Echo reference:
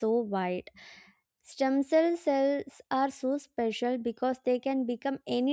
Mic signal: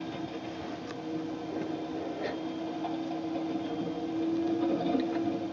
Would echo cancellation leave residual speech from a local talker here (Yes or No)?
No